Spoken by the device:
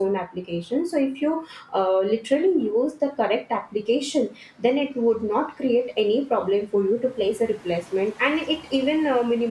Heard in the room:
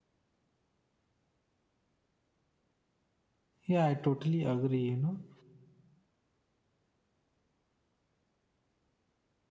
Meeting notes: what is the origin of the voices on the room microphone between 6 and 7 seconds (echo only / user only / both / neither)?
neither